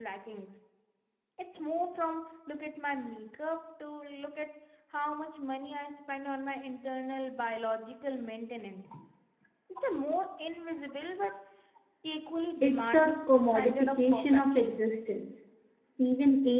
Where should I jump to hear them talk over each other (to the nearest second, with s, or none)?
13 s